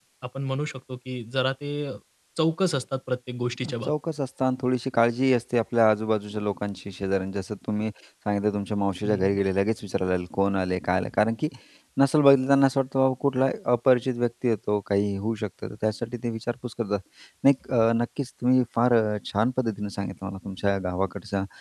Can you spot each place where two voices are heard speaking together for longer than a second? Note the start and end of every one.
none

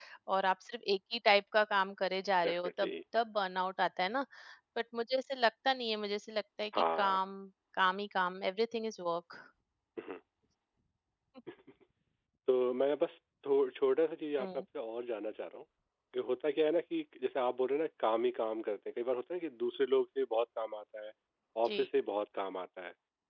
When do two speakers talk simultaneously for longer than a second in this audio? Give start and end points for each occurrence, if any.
none

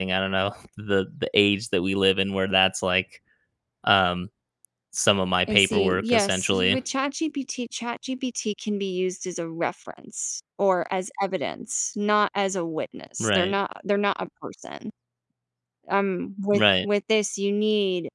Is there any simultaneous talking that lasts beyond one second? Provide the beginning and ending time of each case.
5.5-6.8

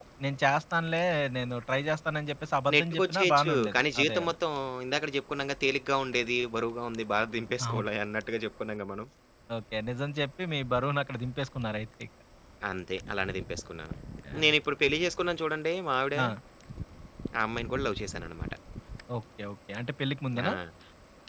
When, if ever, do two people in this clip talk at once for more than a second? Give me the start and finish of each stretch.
2.7-4.3

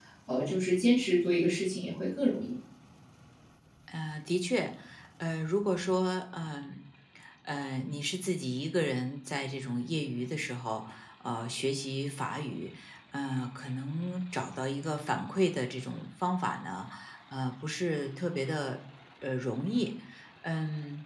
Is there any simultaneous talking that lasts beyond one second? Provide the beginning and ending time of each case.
none

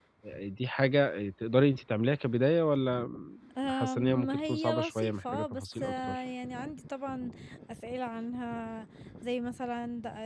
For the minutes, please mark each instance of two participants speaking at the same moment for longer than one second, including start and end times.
3.6-6.2

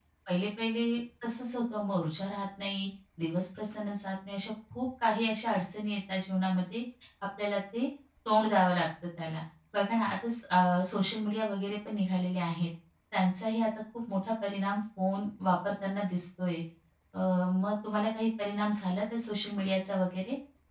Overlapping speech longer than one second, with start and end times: none

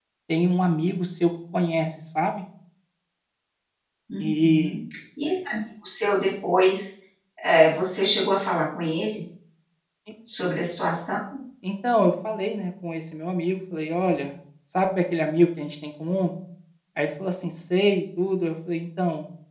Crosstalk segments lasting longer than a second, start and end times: none

